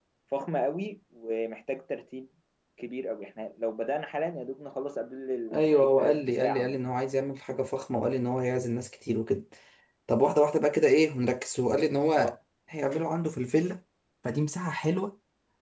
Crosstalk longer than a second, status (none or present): present